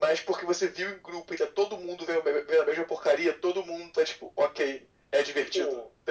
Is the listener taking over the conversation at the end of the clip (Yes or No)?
Yes